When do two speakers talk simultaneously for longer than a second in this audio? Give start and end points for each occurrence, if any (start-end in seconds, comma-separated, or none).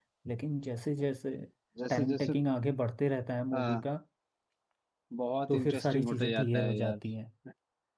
5.5-7.0